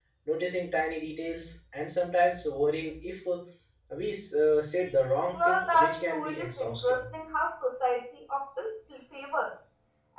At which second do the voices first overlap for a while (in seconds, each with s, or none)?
5.3 s